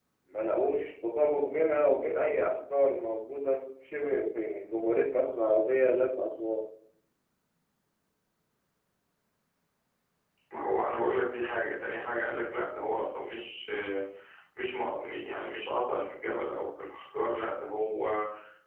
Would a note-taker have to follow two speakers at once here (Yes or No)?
No